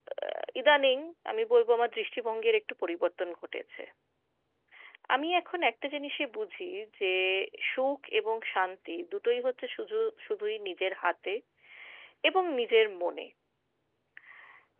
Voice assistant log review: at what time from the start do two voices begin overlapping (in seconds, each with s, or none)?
none